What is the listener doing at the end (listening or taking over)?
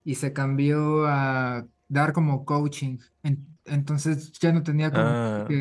listening